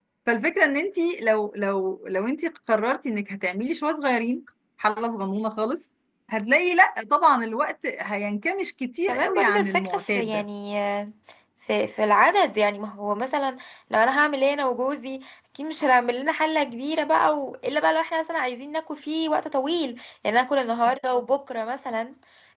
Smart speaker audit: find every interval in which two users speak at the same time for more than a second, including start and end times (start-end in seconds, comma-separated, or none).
9.1-10.4